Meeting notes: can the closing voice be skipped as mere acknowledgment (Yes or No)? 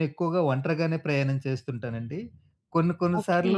Yes